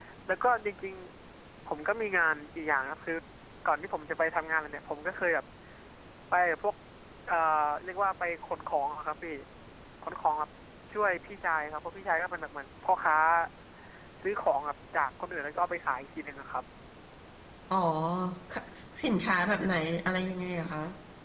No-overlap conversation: Yes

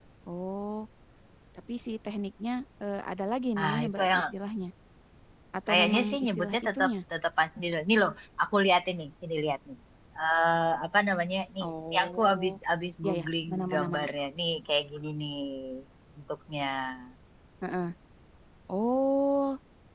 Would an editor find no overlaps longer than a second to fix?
No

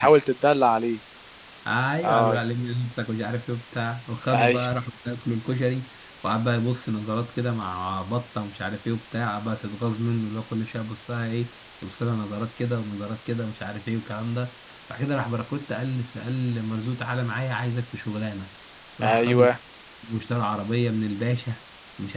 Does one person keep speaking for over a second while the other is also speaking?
No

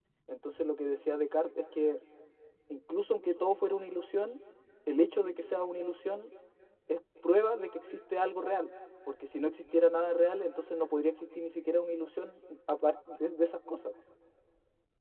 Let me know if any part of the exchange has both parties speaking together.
No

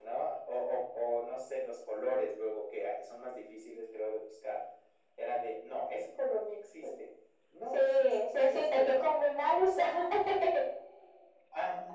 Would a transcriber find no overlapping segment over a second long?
No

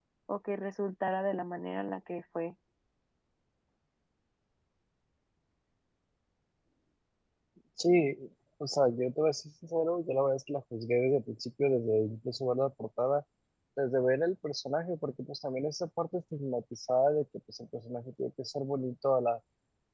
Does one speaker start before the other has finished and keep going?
No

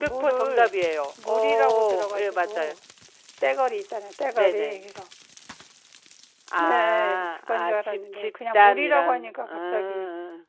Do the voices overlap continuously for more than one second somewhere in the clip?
Yes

